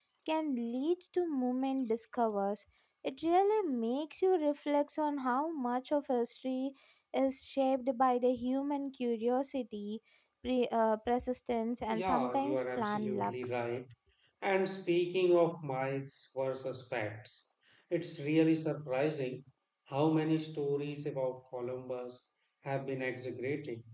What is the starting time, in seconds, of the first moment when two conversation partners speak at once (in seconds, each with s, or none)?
11.9 s